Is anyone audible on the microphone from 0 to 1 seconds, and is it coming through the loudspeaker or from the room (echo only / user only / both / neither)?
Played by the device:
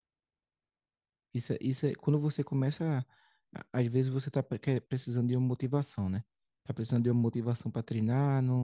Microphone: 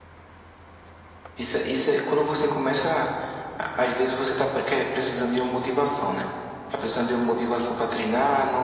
neither